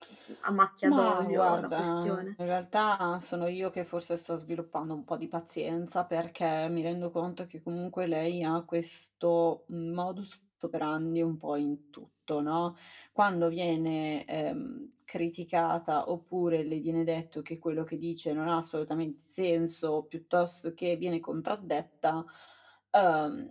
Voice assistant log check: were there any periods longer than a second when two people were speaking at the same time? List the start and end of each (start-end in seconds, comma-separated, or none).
0.8-2.2